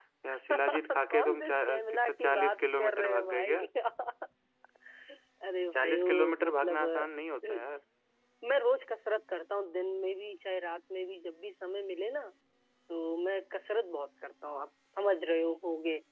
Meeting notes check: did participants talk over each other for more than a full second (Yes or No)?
Yes